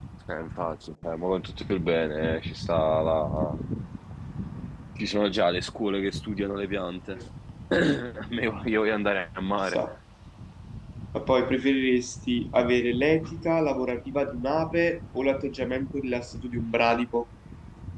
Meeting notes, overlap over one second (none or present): none